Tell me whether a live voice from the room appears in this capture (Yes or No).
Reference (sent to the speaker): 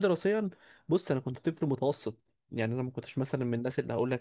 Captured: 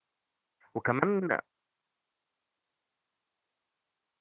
Yes